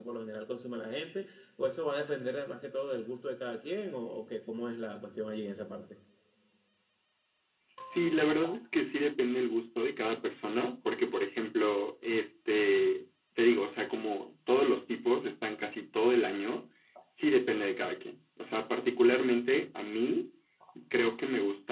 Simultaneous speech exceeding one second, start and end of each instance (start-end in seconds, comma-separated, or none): none